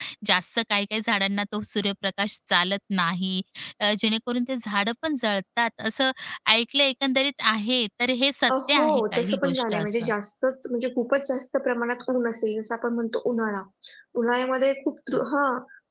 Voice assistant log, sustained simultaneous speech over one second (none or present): present